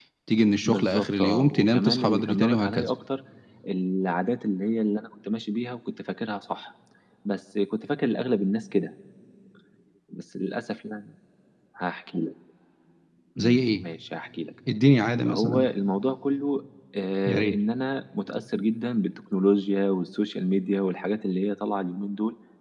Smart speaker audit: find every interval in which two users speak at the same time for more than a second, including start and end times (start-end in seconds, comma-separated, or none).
0.6-2.9